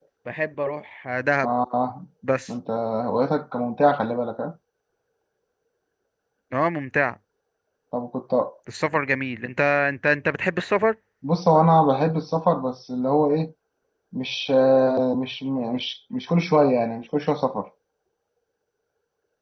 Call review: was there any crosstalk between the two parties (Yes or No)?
No